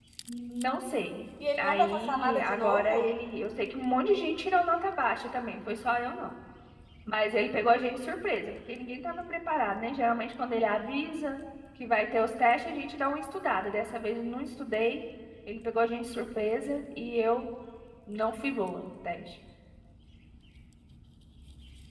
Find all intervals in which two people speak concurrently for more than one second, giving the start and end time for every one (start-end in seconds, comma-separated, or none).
1.6-3.1